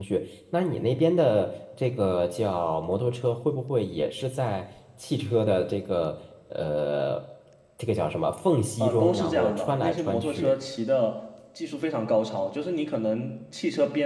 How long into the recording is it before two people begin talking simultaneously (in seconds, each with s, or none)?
8.8 s